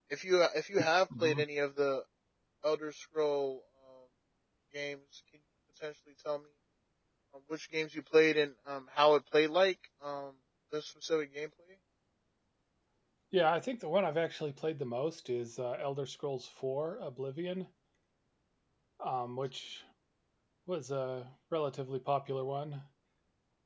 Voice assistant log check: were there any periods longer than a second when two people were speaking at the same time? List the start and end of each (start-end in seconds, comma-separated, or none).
none